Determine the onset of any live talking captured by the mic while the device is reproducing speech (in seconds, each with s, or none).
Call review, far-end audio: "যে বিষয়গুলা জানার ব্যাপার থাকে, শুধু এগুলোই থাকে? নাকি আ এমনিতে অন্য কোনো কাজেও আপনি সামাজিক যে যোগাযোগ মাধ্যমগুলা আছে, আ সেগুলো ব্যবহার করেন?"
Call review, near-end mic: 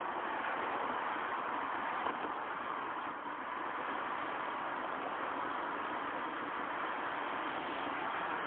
none